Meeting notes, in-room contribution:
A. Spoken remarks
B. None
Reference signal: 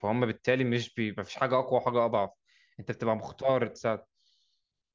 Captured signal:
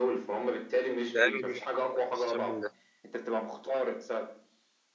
A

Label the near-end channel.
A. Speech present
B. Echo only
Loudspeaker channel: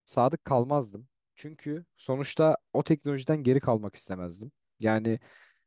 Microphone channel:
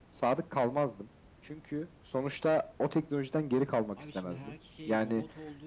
A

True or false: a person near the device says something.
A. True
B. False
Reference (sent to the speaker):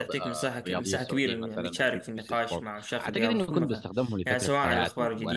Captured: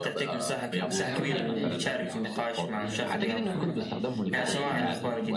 A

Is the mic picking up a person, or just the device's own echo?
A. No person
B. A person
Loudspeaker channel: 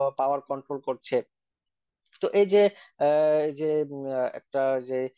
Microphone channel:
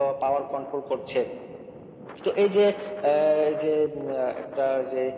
A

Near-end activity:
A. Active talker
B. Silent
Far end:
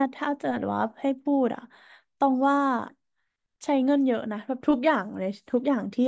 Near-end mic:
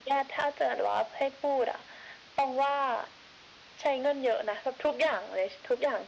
B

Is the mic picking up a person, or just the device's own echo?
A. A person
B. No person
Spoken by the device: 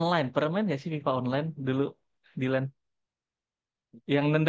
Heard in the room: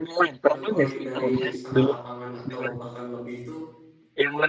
A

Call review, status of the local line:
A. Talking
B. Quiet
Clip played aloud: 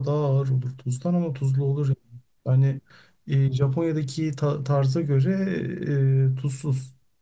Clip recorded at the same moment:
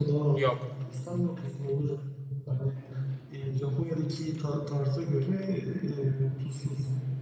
A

